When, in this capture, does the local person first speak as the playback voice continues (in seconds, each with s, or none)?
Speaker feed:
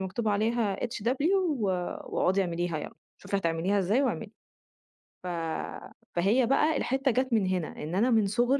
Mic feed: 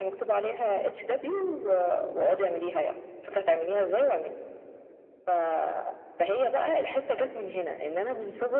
none